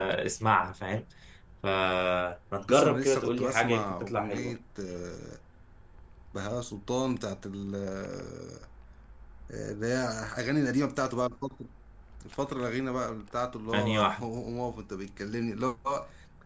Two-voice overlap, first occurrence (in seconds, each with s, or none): 2.7 s